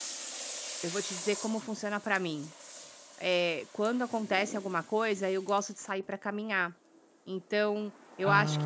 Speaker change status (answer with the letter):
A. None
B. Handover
A